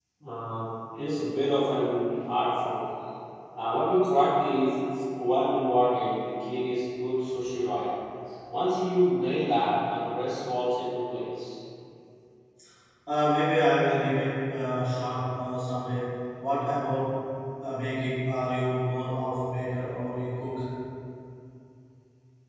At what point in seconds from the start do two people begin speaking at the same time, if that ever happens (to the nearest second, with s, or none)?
none